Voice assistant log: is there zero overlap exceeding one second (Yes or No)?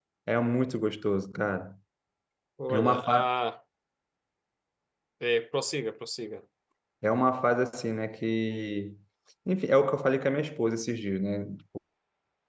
Yes